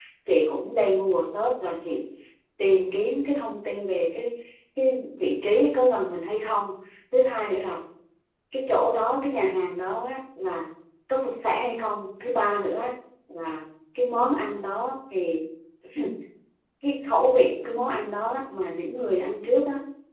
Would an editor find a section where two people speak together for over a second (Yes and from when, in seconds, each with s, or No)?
No